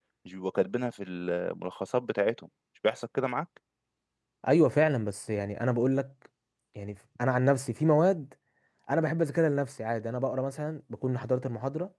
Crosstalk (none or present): none